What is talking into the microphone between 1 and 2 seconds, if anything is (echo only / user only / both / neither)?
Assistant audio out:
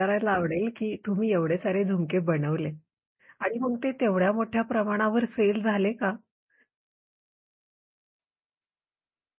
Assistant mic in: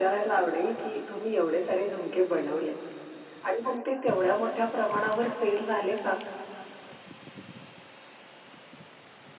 echo only